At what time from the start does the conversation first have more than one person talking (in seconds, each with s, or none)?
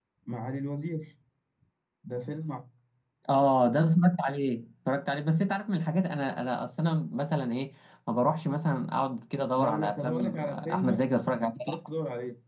9.6 s